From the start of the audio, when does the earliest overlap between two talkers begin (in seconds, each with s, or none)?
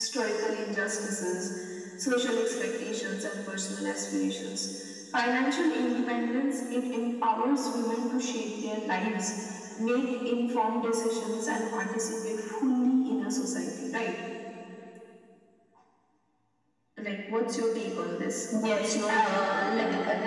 18.5 s